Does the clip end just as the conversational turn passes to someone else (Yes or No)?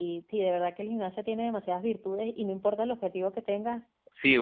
Yes